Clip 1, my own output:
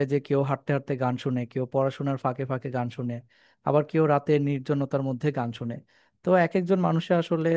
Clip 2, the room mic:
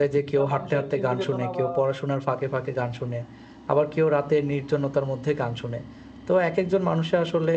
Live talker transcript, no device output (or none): আহ, মানুষের চিন্তা চেতনা বা